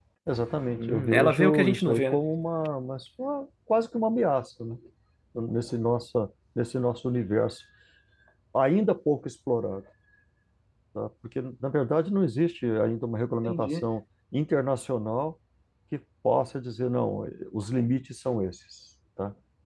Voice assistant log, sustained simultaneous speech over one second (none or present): present